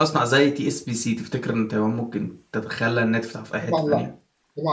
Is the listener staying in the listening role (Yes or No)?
No